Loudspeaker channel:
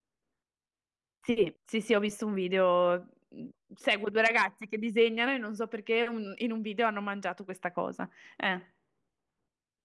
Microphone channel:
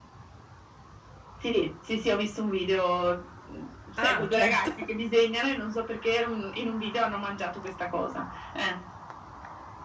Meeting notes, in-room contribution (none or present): present